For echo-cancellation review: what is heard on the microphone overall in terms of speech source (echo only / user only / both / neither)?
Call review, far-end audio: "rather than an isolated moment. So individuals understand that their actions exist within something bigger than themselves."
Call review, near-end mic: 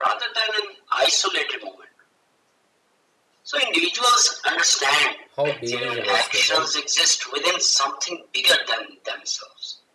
both